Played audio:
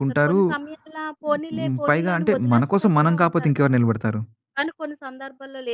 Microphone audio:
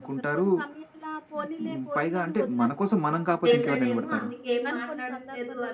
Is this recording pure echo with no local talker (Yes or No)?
No